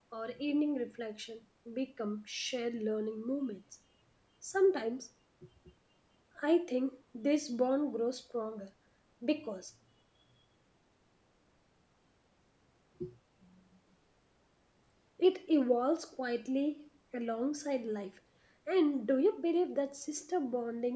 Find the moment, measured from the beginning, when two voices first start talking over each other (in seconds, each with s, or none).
none